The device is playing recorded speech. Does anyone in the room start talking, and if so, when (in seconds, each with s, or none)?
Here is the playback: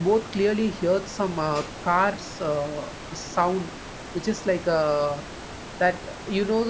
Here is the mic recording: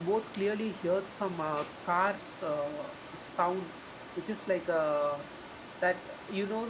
none